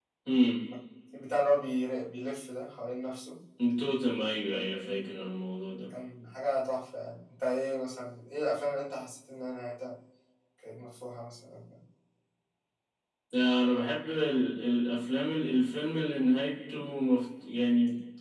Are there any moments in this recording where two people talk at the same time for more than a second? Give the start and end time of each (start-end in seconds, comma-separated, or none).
none